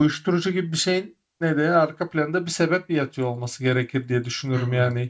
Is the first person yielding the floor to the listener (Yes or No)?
Yes